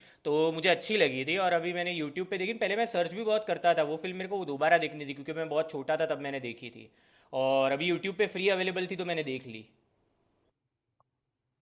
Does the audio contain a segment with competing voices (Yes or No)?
No